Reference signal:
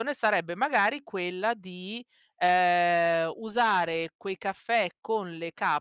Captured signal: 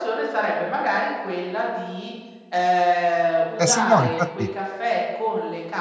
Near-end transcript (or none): Eh, sì, no, infatti